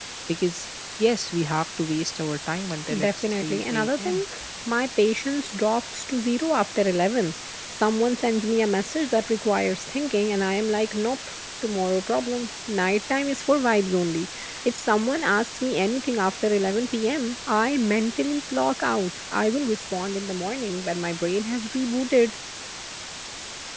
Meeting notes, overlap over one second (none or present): present